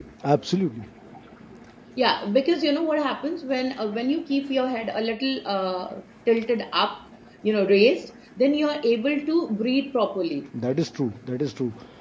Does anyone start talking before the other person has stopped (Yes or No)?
No